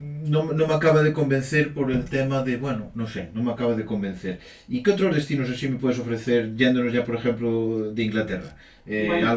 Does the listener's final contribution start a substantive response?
No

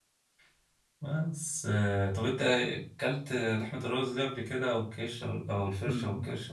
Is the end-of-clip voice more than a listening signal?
Yes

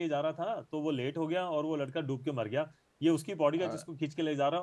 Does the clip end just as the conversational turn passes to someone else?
No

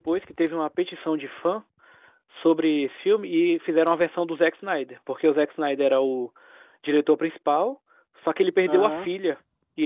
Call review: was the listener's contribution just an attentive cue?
Yes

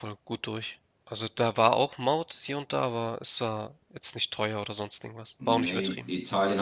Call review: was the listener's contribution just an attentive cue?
No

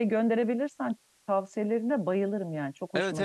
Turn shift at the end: Yes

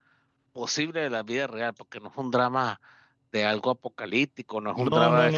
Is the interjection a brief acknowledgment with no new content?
No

